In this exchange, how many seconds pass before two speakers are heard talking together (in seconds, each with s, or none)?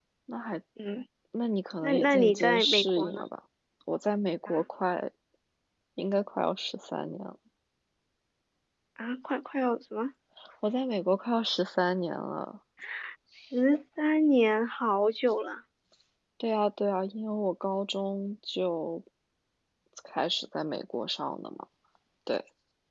1.8 s